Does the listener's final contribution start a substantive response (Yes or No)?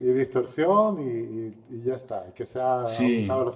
Yes